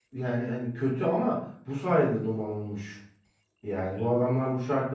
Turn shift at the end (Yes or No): No